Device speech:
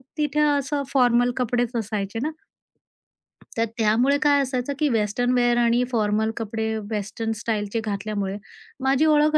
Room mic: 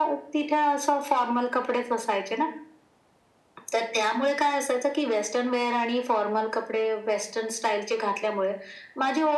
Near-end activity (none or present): none